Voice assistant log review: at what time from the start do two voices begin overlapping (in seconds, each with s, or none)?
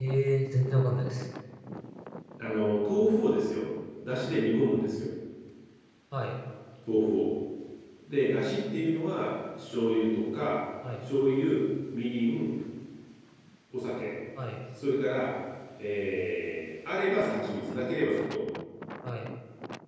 none